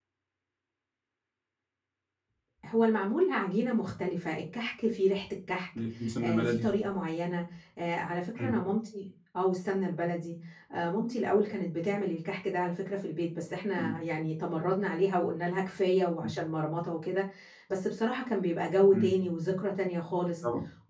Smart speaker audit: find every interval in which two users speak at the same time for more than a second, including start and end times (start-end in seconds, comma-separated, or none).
none